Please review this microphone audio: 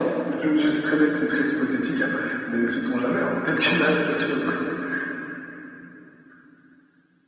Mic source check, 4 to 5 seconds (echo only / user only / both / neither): echo only